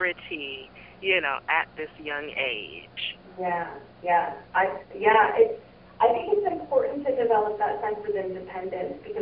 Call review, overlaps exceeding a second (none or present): none